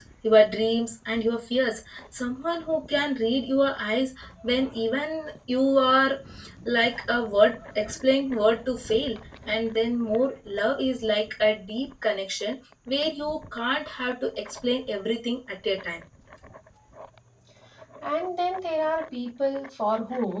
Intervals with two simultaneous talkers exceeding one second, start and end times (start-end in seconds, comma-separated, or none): none